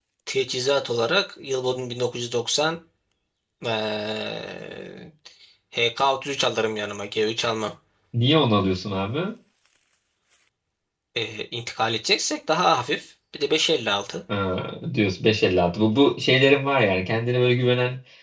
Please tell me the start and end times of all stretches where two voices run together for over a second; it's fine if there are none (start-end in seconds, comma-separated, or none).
none